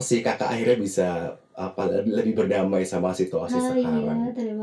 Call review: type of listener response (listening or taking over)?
taking over